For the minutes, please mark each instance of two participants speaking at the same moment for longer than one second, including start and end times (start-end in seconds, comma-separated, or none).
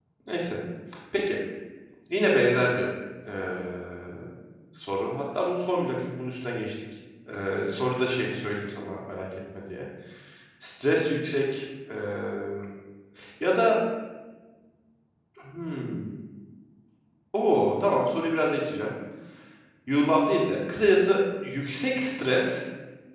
none